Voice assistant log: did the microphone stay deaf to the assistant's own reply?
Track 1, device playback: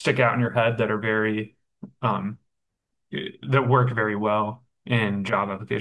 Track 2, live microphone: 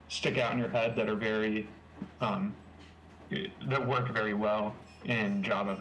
No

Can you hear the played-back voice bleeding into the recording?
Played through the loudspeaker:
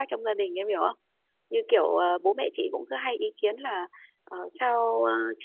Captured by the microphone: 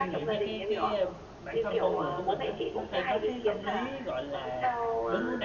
Yes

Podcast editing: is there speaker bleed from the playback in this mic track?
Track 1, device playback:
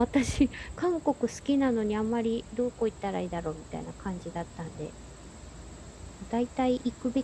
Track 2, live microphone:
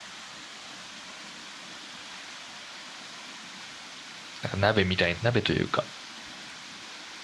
No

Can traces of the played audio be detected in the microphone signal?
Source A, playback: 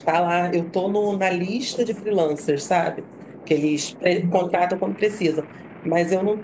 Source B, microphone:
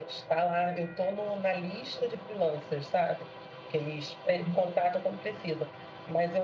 Yes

